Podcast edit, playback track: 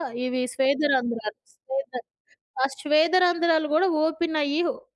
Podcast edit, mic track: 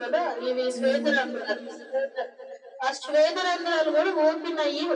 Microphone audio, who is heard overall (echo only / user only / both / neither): both